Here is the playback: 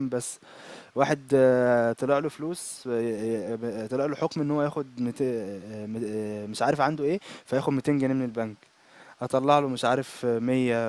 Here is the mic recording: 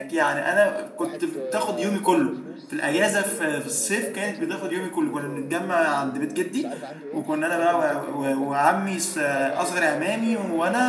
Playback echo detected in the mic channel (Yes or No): Yes